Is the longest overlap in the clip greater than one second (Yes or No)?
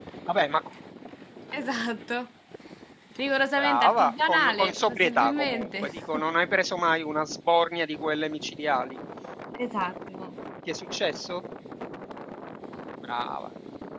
Yes